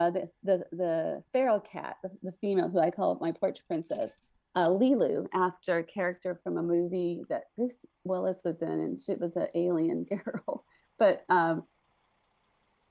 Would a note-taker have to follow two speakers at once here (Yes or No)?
No